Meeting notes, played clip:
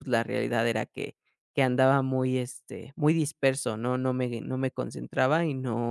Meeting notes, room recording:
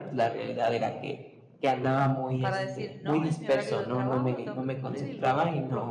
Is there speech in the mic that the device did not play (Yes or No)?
Yes